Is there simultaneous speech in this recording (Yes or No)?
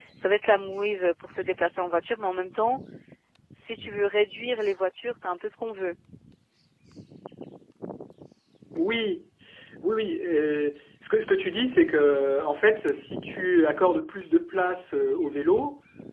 No